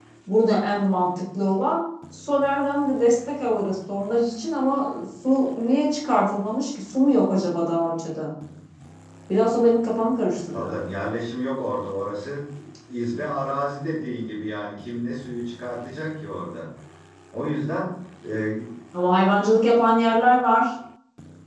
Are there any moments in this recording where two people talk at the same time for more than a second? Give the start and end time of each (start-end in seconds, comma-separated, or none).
none